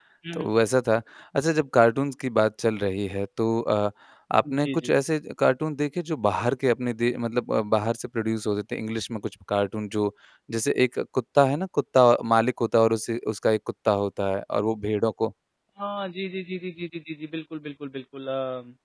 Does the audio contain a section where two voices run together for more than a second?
No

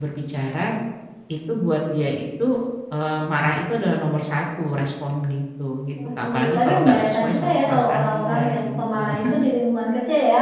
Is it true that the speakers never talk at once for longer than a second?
No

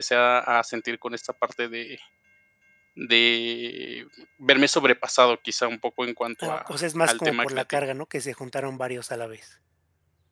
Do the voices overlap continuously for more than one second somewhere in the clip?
Yes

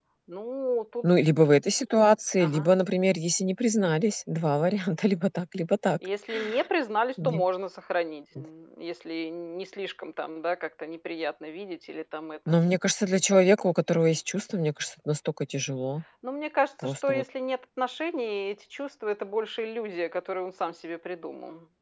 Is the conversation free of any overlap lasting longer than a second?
Yes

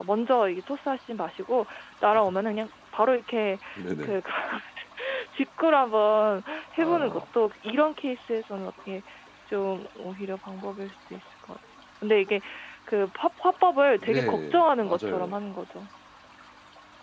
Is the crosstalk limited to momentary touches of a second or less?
No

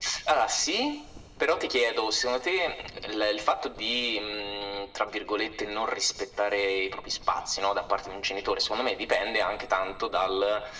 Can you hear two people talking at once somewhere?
No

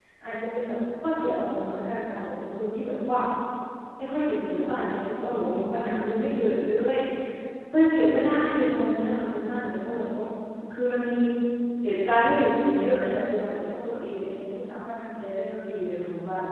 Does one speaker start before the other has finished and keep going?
No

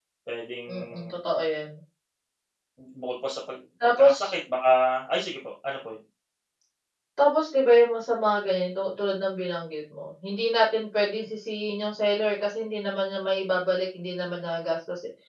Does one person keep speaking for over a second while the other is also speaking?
No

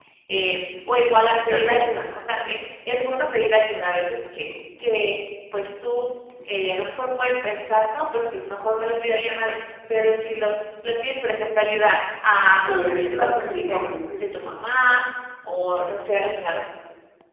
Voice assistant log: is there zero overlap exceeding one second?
No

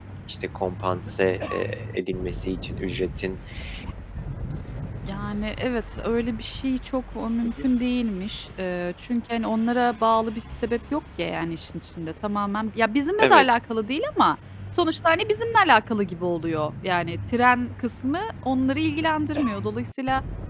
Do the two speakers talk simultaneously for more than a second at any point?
No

